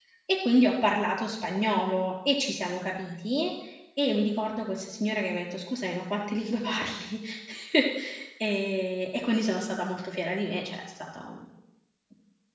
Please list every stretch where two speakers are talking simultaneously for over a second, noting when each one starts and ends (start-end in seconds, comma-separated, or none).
none